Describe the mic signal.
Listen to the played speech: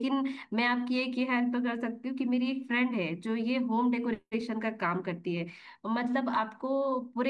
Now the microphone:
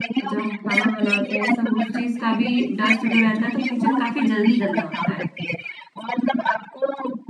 both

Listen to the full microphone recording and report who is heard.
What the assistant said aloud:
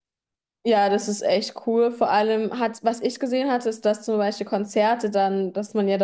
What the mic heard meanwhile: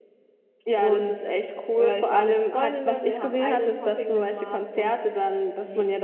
both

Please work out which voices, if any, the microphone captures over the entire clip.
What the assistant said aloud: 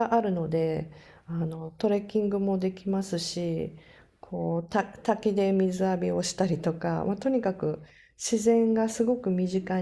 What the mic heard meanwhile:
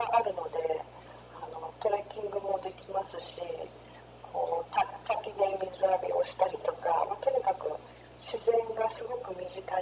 echo only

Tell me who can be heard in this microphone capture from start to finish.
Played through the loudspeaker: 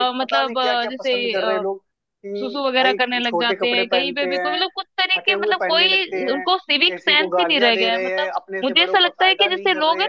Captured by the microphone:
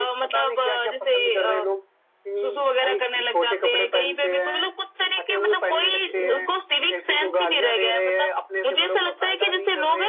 echo only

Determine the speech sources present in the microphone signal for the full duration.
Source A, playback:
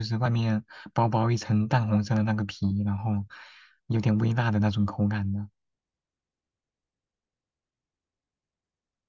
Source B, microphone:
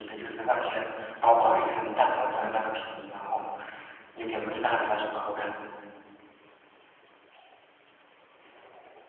echo only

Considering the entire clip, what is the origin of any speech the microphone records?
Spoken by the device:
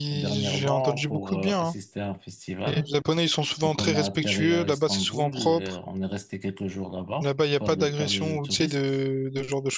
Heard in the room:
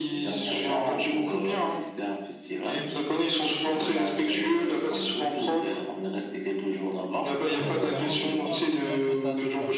both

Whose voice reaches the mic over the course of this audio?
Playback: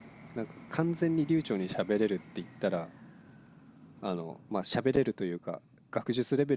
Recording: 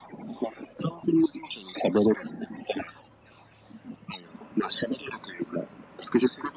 echo only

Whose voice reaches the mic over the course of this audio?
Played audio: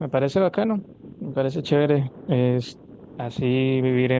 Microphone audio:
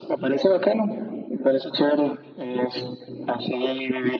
echo only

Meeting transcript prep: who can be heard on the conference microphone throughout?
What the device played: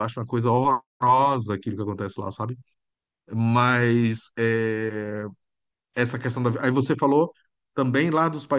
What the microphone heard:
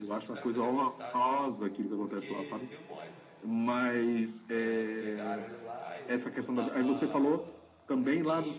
both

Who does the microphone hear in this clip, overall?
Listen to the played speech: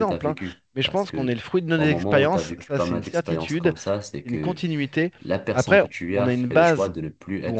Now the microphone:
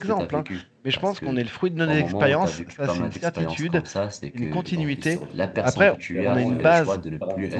both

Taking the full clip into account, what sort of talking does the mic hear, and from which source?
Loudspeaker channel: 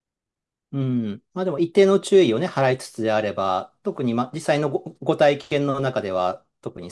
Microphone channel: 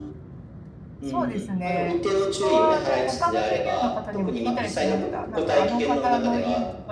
both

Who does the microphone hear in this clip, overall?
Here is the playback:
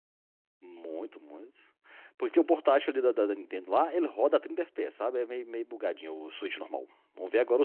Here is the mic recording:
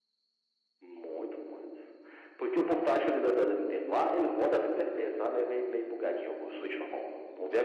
echo only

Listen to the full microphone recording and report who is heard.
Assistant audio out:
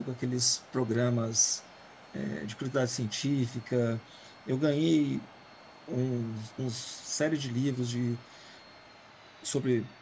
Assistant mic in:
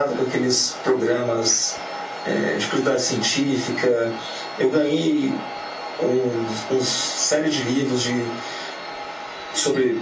echo only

